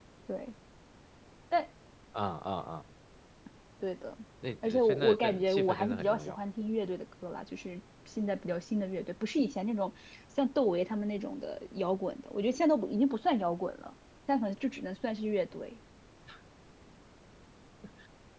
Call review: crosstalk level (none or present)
present